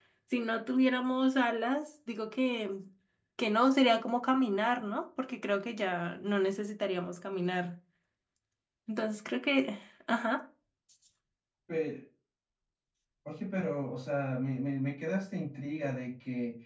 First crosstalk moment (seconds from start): none

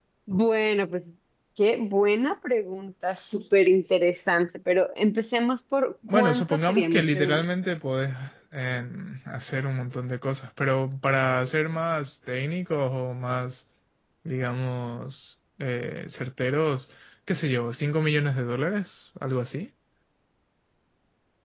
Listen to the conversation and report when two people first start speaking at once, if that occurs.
6.0 s

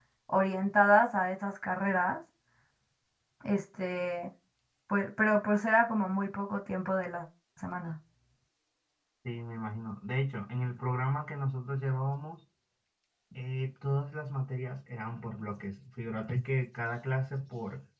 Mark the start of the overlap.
none

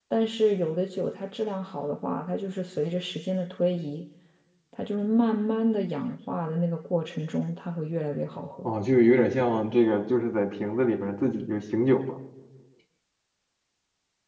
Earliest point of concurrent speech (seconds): none

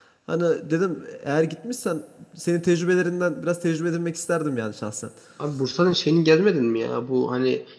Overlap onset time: none

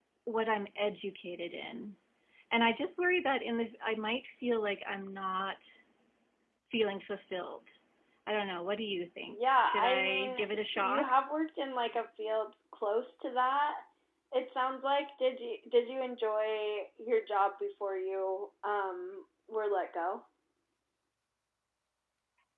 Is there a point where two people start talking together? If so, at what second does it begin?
9.3 s

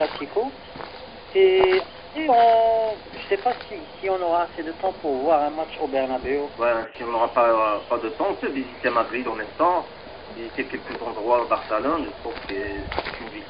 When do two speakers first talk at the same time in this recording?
none

